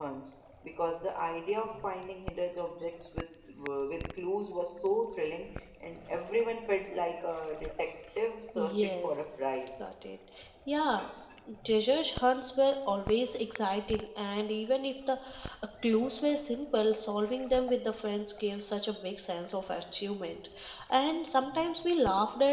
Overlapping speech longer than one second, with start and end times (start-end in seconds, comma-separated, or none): 8.6-9.8